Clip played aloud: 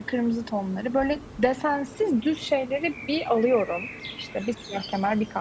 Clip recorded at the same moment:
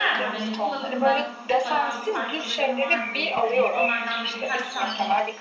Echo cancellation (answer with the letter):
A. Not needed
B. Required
B